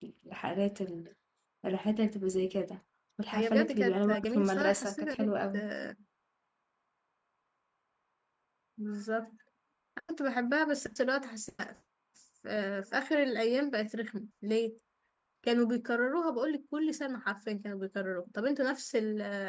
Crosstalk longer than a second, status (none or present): present